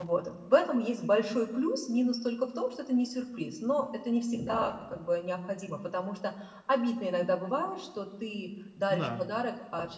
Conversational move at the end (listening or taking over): listening